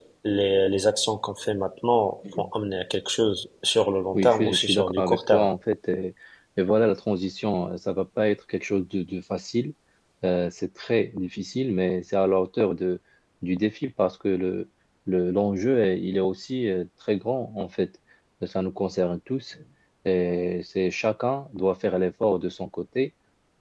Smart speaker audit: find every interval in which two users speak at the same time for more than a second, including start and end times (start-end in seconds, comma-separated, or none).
4.1-5.5